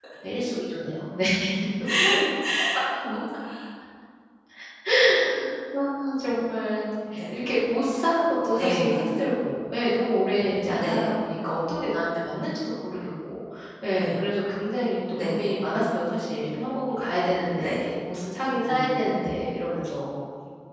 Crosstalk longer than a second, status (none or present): none